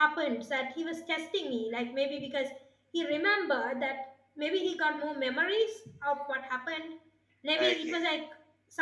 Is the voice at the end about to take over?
No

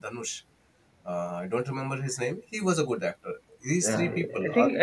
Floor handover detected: Yes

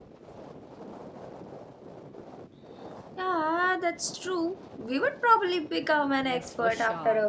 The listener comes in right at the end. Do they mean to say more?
Yes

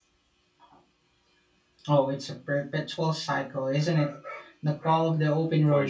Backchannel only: No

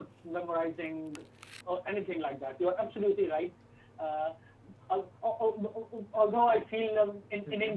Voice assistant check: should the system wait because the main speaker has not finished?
Yes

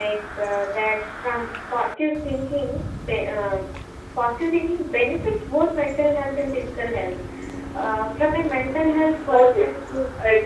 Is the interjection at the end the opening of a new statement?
Yes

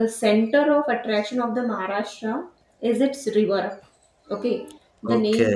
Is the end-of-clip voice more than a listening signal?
No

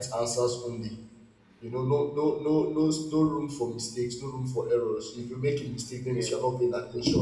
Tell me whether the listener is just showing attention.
Yes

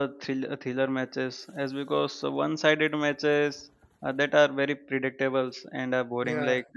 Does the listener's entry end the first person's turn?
No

